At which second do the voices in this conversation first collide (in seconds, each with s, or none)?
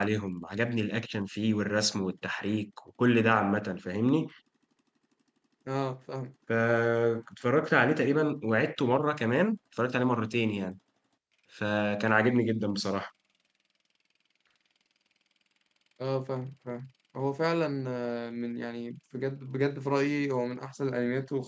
none